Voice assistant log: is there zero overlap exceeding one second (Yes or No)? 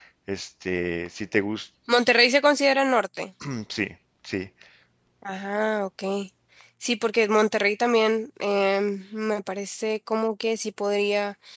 Yes